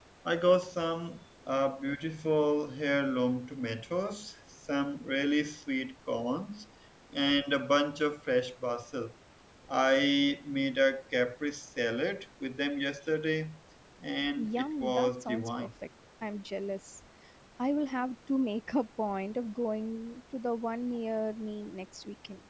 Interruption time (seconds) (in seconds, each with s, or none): 14.4 s